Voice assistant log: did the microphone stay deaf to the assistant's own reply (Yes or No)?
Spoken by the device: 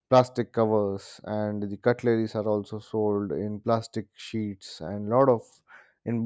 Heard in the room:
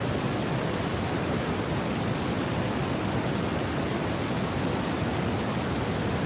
Yes